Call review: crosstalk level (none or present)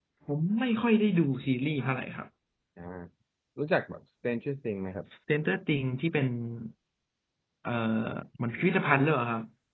none